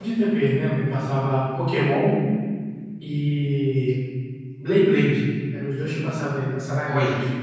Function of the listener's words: taking over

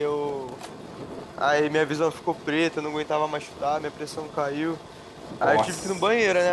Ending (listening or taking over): listening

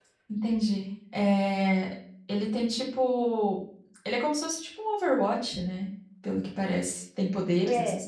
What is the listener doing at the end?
taking over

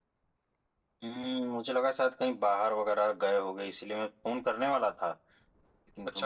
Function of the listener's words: listening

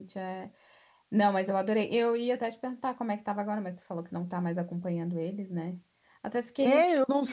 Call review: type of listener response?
taking over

